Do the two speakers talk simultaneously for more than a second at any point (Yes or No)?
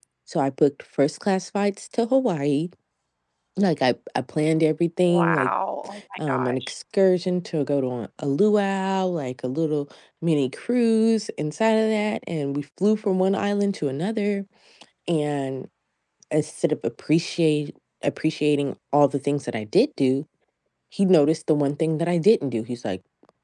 No